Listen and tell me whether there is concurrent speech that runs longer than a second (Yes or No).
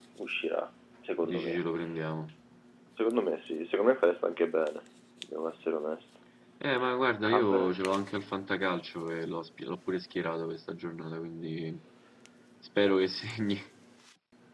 No